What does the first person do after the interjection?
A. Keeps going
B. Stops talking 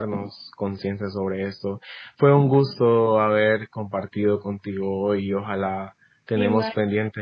A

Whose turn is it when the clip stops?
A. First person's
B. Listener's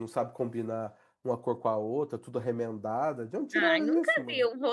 B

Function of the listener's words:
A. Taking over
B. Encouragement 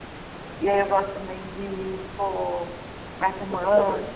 B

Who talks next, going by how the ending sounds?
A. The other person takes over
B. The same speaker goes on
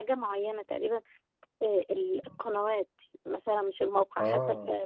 B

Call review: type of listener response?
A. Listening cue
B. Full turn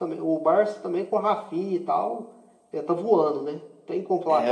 B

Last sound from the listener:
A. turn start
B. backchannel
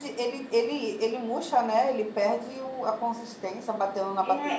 A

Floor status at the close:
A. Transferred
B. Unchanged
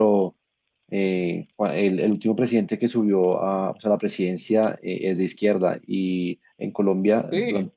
B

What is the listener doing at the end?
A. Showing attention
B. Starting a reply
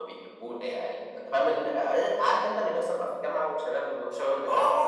B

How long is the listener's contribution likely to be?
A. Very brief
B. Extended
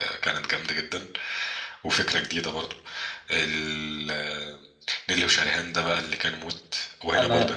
A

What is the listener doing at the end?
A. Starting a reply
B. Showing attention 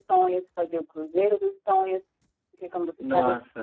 B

